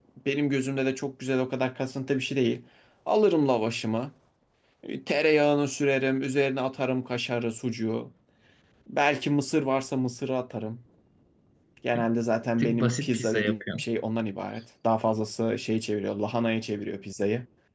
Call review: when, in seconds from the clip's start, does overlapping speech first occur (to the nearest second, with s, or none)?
13 s